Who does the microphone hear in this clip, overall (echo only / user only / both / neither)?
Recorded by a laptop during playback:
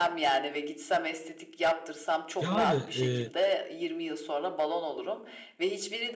both